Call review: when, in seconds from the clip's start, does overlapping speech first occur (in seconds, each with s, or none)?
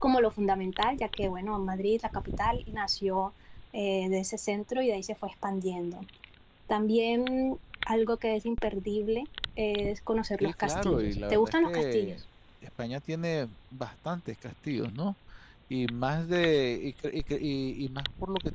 10.4 s